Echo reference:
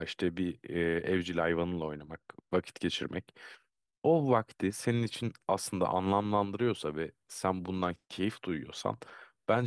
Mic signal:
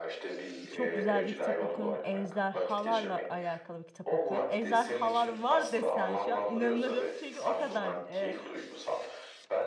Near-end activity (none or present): present